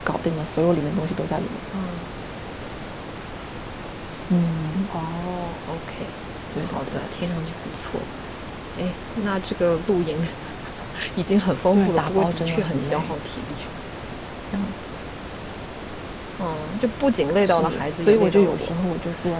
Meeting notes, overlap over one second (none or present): present